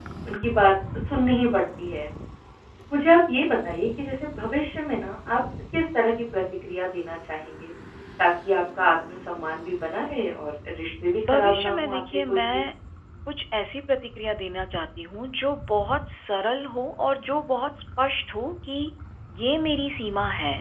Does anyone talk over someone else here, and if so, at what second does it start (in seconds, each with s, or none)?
11.2 s